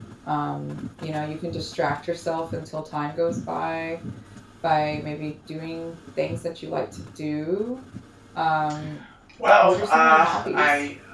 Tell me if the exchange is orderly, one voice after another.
No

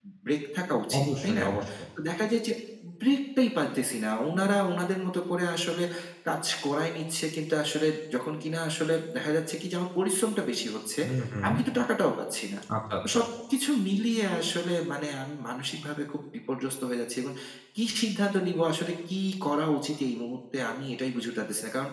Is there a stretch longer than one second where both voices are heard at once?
No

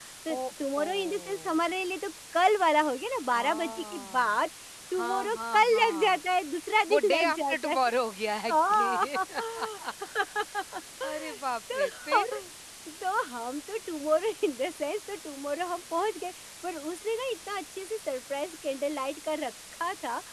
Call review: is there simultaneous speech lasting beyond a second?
Yes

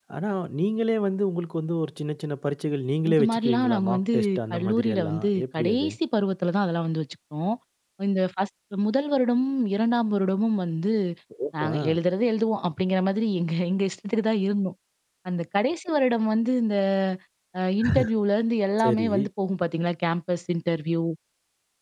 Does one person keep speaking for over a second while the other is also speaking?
Yes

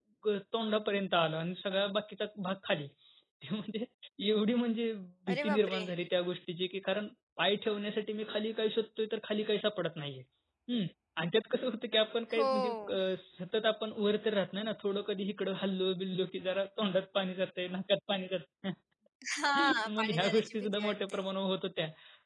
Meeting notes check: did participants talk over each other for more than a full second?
Yes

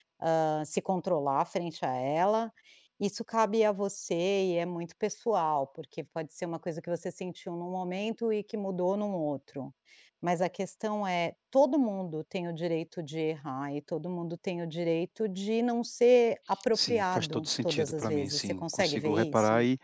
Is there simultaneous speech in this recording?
Yes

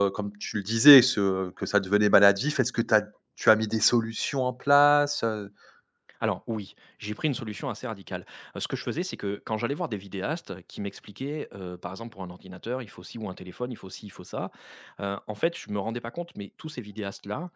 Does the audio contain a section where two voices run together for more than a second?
No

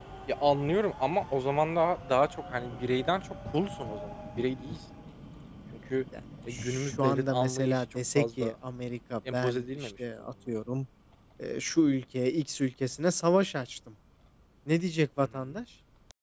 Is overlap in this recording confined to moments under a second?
No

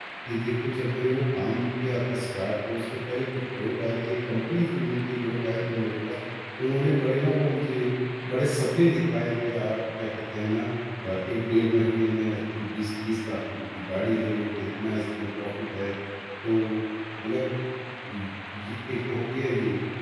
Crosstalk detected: No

